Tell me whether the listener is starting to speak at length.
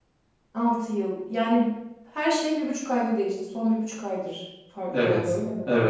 Yes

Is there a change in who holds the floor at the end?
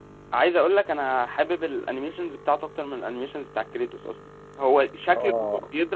No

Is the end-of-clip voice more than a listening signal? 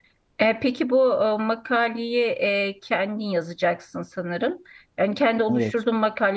No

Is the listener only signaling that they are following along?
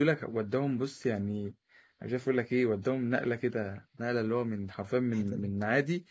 Yes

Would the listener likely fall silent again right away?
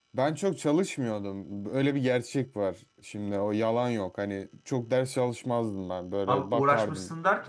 No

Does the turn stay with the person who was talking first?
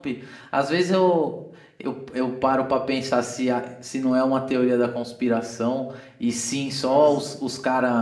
Yes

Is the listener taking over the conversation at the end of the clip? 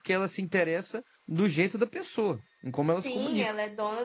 Yes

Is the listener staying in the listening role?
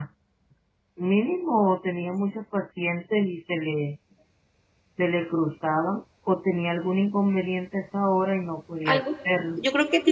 No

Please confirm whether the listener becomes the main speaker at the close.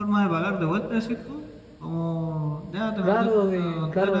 Yes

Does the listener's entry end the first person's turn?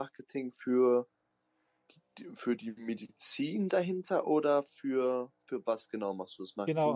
Yes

